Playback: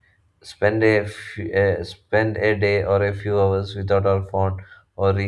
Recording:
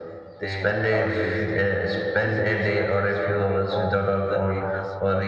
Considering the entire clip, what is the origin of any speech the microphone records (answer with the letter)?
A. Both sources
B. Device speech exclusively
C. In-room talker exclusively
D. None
A